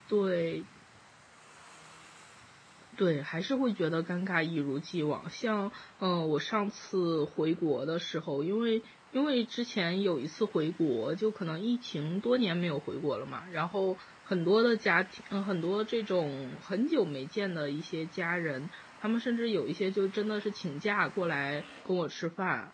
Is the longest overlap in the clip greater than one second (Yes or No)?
No